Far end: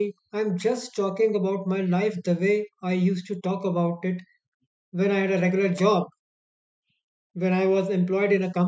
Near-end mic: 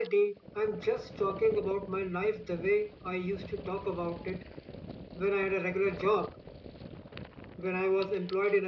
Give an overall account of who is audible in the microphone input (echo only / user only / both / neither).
echo only